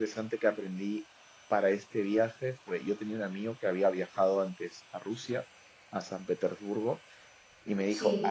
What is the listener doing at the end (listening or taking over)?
listening